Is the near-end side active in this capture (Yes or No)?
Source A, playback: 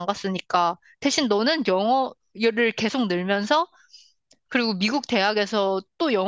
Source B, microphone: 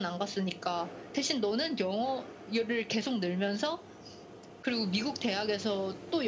No